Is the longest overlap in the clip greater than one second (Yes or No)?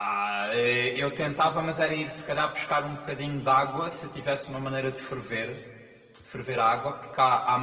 No